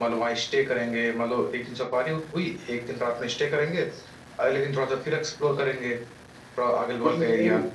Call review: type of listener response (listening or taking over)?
taking over